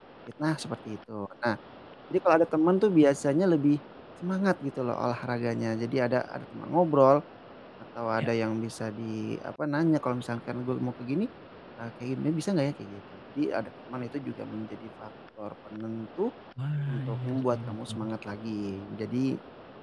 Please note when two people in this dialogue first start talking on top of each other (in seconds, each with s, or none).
16.9 s